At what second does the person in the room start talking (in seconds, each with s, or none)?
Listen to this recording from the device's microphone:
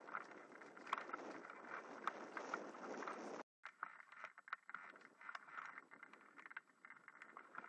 none